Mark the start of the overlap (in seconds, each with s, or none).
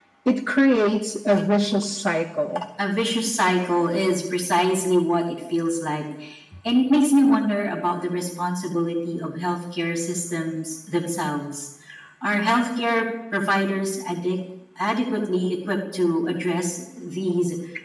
none